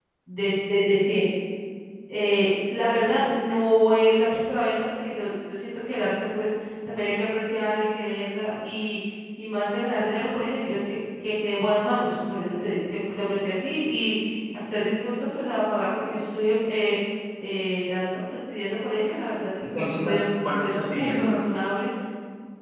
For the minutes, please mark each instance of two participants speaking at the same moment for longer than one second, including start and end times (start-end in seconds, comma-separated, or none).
19.8-21.3